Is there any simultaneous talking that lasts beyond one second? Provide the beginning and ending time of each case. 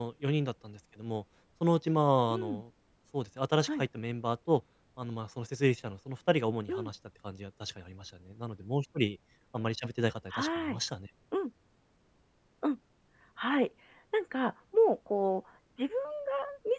none

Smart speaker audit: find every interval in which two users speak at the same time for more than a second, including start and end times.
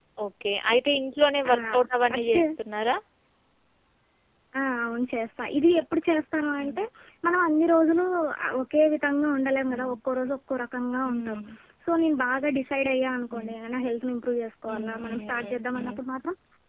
14.7-16.0

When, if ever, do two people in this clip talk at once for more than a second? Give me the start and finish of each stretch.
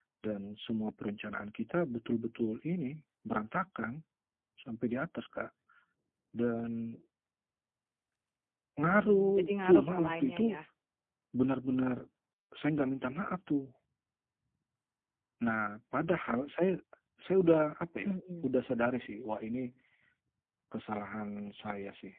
8.8-10.5

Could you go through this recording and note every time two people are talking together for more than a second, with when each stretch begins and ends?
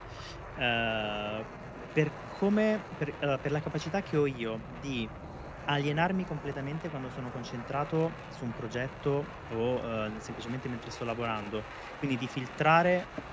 none

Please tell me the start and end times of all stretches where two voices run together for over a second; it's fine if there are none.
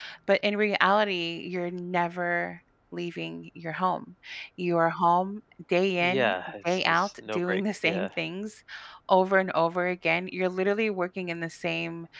6.6-8.1

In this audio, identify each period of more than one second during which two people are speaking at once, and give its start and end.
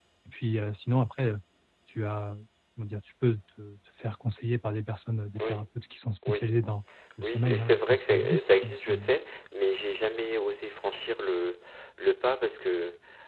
7.2-9.1

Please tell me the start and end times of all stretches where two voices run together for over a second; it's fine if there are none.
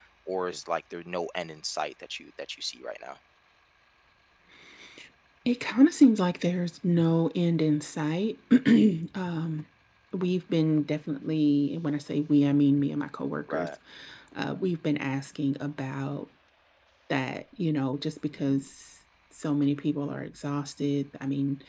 none

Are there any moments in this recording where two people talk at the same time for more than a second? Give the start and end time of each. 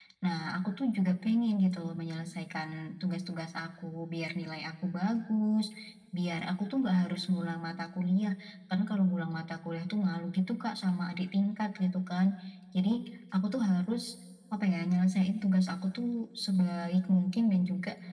none

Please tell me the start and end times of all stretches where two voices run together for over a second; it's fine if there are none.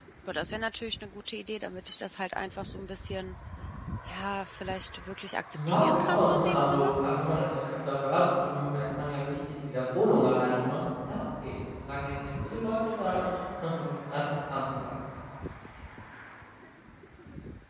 5.7-6.9

